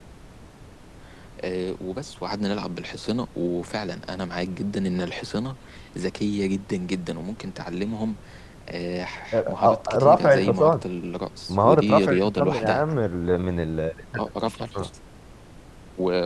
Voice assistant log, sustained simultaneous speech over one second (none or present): present